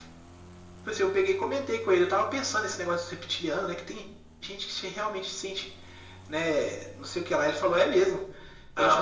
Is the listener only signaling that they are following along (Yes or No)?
Yes